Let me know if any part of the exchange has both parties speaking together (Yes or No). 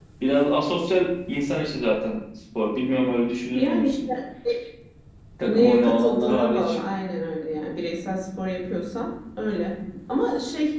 Yes